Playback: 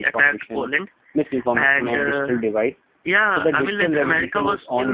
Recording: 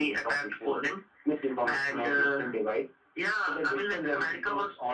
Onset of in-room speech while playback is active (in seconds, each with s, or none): none